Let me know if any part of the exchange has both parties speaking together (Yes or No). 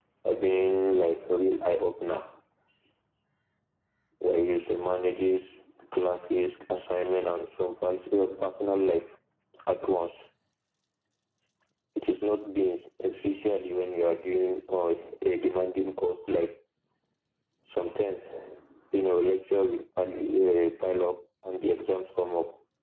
No